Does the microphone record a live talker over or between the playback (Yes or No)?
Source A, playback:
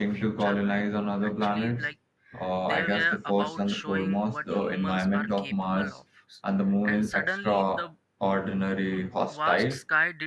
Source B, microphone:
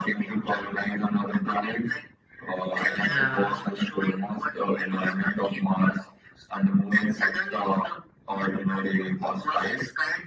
Yes